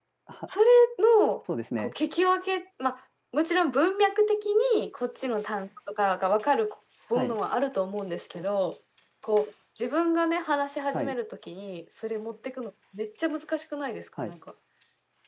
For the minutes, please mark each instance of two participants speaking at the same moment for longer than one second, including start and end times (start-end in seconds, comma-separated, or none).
none